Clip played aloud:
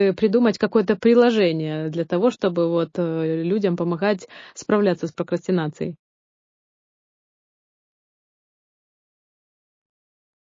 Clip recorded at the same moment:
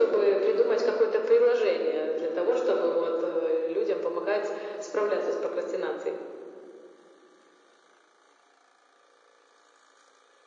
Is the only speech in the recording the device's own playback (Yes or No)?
Yes